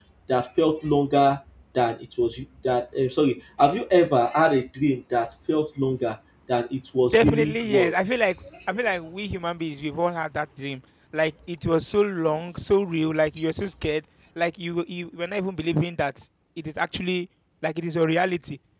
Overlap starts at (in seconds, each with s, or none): 7.0 s